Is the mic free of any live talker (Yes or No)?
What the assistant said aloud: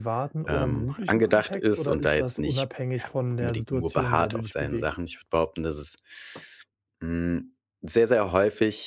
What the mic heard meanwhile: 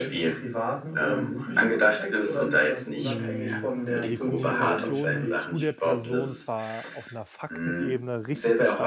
No